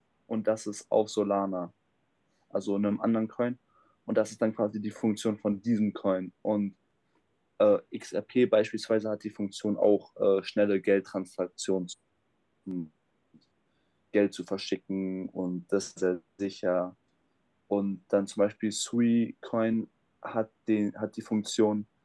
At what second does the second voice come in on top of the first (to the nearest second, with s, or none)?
none